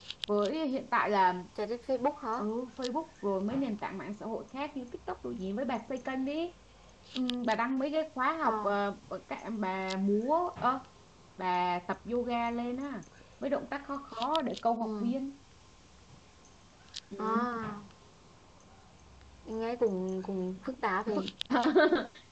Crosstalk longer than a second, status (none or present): none